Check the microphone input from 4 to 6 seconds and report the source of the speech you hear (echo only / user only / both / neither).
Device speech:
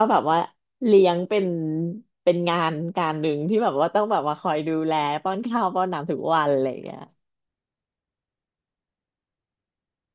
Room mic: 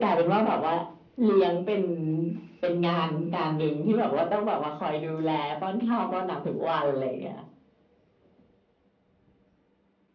echo only